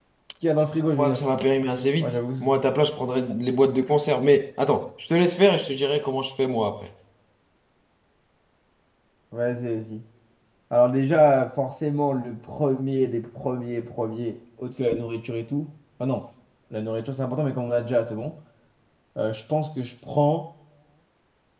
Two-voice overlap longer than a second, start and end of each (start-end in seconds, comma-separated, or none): none